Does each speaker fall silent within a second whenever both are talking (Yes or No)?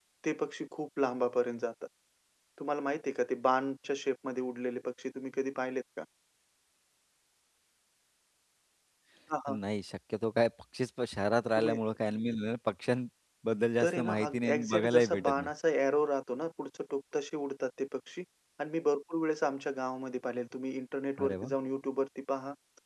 No